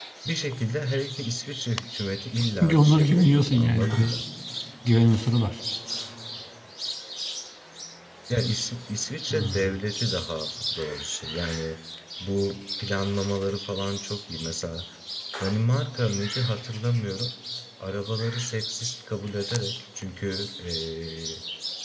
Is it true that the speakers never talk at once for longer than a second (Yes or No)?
No